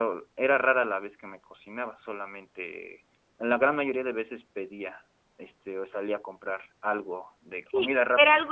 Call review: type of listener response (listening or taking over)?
taking over